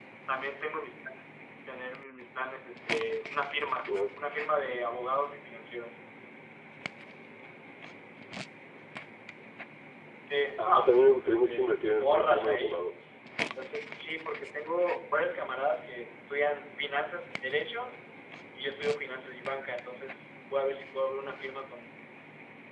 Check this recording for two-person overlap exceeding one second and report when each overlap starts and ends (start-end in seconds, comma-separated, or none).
10.6-12.8